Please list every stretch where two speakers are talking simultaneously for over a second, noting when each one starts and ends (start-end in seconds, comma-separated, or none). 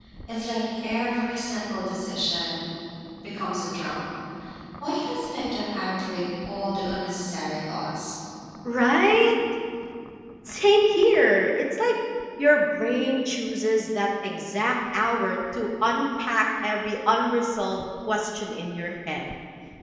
none